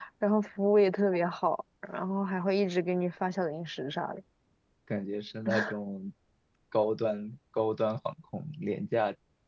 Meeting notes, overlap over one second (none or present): none